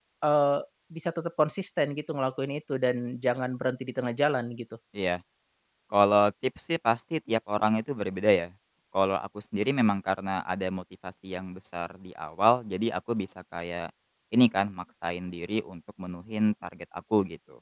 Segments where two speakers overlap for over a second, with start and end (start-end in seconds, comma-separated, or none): none